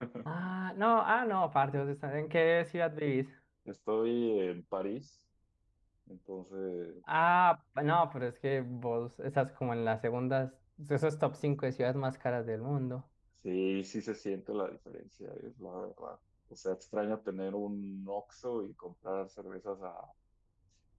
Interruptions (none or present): none